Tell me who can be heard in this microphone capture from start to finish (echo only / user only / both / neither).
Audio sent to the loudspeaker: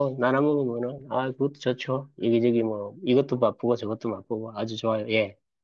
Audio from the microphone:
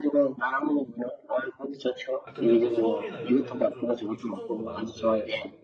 both